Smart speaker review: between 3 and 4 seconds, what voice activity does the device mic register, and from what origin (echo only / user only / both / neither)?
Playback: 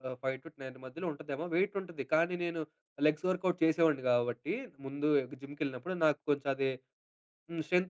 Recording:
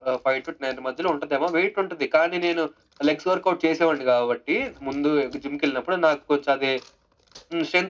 echo only